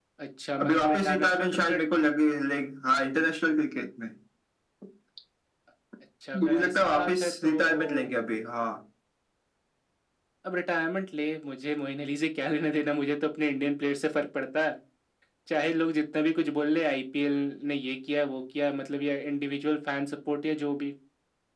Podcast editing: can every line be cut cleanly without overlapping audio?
No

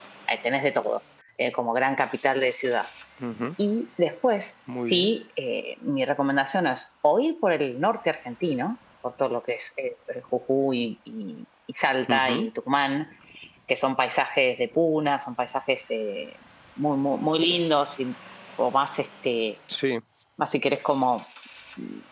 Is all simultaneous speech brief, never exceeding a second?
Yes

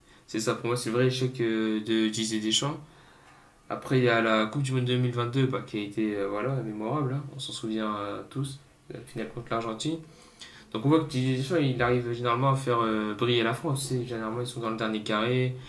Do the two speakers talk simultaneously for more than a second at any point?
No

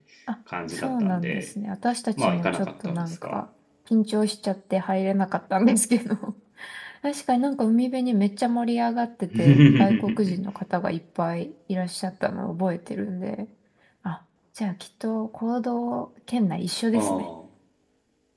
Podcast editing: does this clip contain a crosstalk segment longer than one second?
Yes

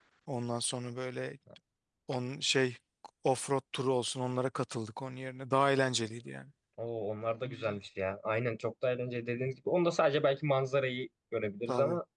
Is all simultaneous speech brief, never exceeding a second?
Yes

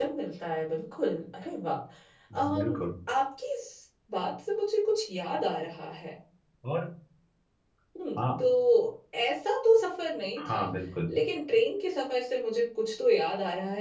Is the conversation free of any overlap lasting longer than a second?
Yes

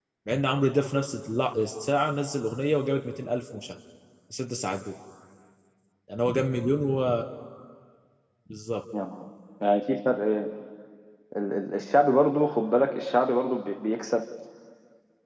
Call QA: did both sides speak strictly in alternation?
Yes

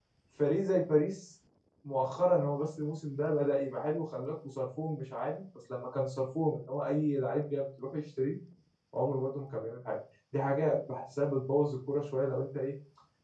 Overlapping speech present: No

